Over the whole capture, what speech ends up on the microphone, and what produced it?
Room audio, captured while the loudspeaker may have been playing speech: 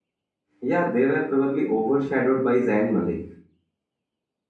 user only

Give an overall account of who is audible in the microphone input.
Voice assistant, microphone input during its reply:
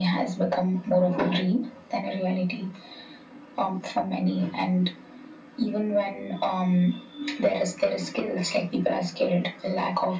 echo only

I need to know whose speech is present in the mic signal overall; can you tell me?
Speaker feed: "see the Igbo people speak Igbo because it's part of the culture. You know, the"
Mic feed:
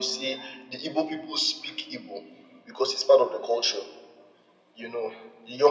echo only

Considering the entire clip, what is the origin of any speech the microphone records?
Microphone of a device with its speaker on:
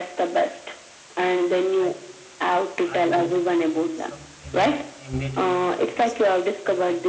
both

